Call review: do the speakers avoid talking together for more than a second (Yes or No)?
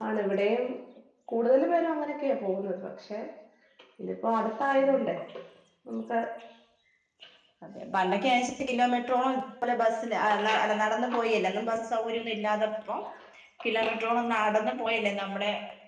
Yes